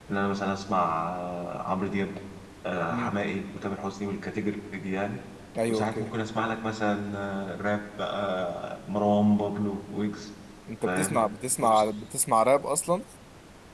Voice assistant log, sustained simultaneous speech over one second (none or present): none